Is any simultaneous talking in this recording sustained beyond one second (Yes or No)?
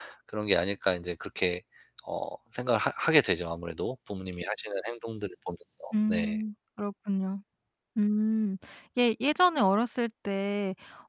No